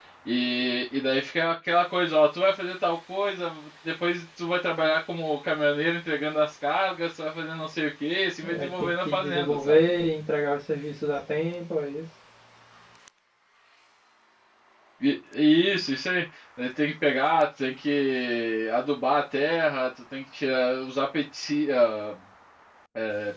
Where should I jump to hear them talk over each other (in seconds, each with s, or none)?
8.4 s